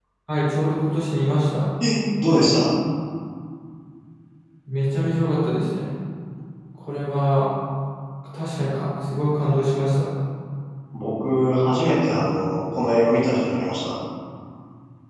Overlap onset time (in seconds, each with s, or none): none